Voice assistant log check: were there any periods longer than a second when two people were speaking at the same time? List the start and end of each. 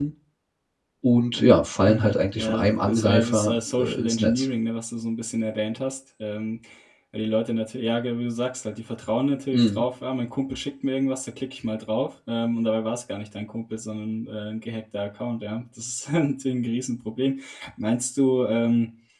1.8-4.5

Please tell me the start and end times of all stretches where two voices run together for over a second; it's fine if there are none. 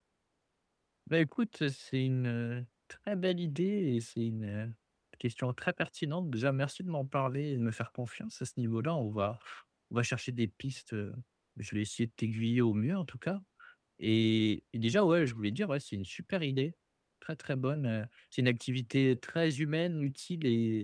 none

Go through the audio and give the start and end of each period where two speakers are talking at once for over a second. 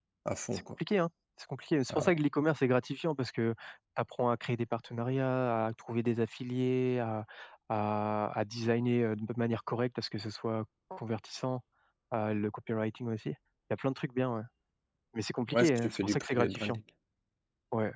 15.5-16.8

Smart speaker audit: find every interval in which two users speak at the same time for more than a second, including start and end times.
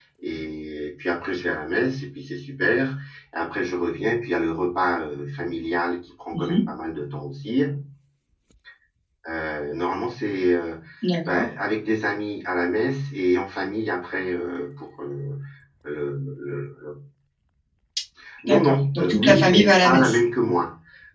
18.5-20.2

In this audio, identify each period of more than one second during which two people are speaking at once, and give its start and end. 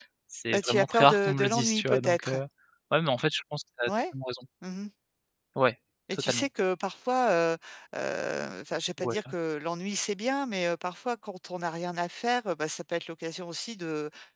0.5-2.4

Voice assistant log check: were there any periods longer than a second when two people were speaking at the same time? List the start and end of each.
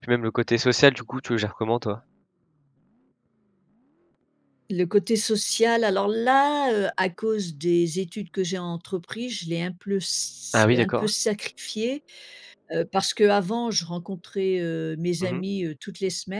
none

